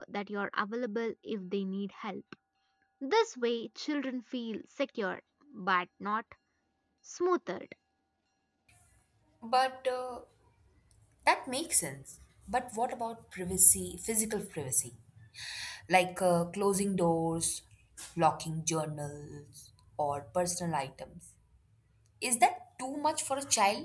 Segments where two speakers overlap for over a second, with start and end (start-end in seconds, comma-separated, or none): none